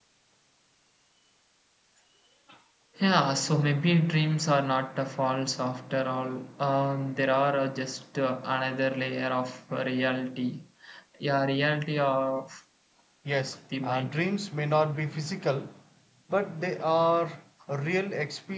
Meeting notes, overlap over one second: none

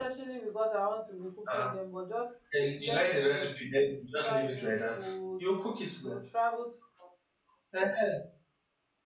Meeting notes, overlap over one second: present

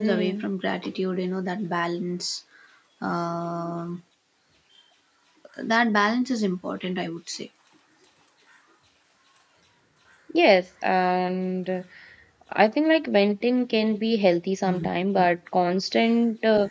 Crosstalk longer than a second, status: none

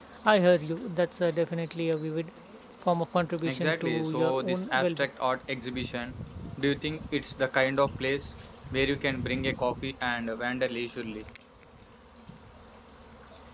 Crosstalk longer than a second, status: present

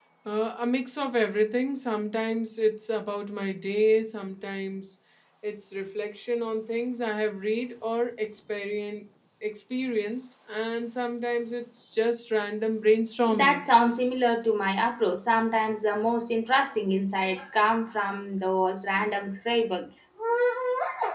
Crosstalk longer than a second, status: none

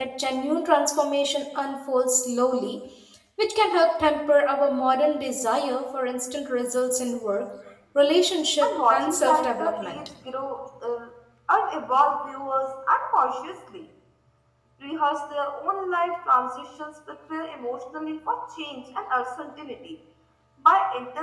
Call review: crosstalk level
present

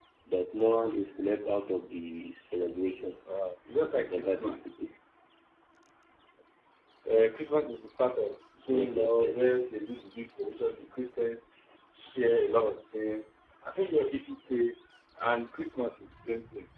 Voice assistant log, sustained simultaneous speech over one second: present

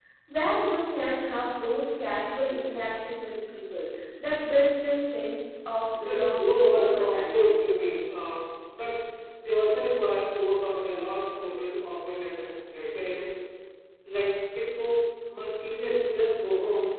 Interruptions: present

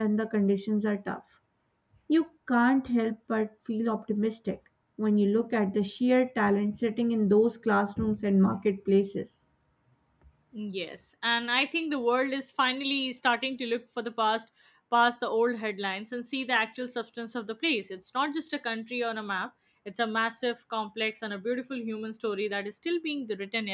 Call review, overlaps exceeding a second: none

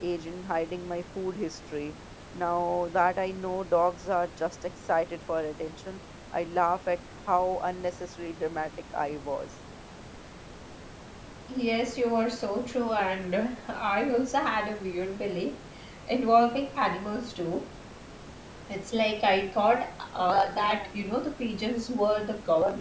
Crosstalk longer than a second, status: none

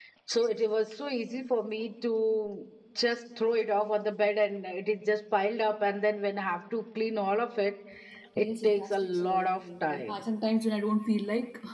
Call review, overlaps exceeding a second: present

